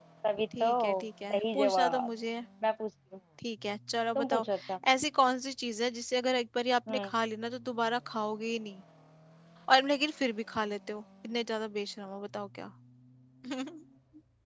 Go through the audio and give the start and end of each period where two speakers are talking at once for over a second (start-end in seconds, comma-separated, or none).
0.6-2.1